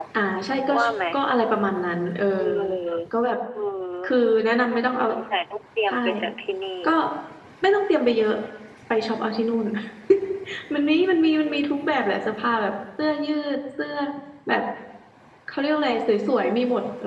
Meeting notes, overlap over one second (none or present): none